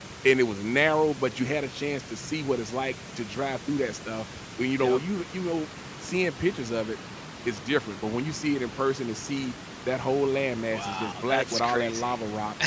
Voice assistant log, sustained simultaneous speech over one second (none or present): present